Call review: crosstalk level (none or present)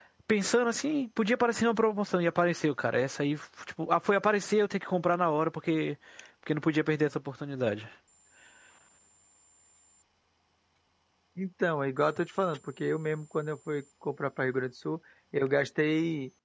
none